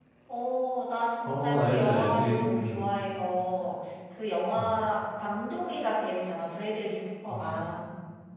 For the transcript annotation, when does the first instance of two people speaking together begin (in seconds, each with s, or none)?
1.2 s